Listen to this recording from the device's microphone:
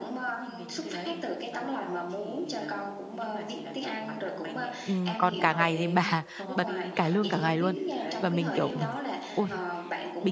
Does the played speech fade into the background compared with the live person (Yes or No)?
Yes